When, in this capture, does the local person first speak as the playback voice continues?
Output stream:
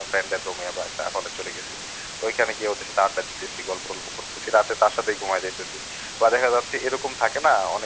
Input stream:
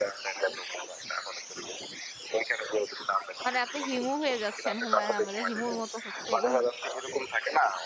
3 s

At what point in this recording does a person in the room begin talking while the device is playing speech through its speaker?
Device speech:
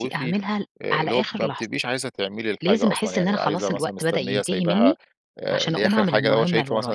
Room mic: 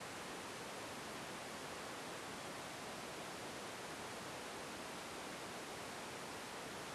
none

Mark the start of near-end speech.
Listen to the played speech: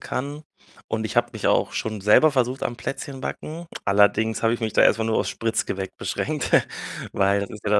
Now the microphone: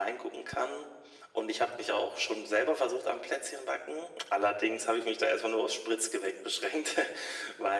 none

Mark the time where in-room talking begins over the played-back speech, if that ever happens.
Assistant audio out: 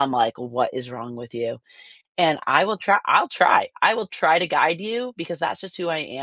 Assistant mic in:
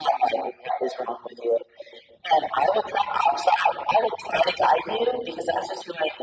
none

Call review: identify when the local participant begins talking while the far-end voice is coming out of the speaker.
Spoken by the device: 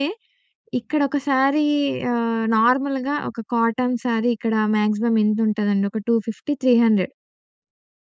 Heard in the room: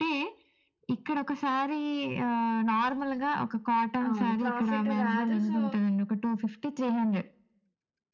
4 s

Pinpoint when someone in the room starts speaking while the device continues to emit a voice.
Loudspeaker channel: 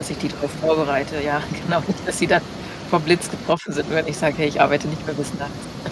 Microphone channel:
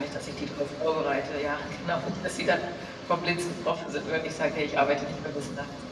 none

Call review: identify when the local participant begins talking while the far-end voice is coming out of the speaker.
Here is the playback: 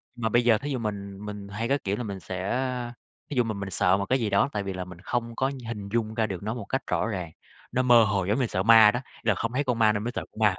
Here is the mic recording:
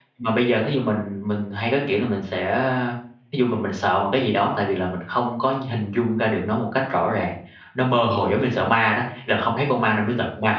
8 s

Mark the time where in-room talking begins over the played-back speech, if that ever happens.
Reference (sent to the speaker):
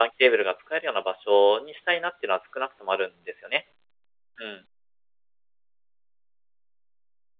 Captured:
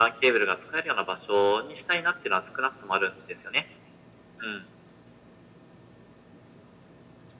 none

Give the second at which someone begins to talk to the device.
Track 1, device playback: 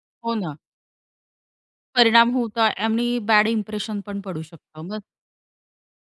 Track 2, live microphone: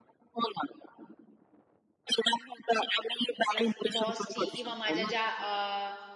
3 s

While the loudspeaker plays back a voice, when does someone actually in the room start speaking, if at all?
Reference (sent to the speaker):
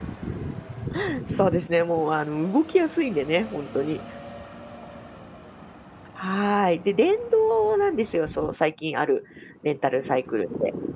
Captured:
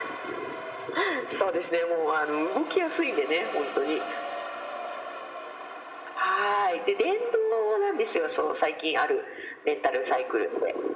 none

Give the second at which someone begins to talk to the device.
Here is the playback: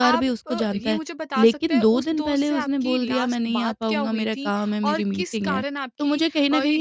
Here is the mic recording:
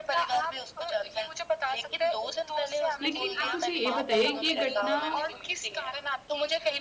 3 s

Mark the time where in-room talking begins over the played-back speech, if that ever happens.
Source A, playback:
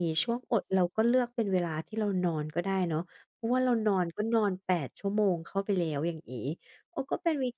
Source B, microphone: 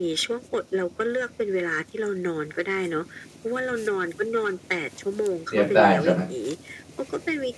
6 s

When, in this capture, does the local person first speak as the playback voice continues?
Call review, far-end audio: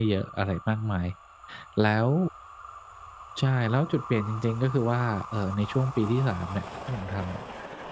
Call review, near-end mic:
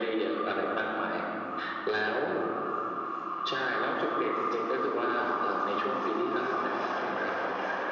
none

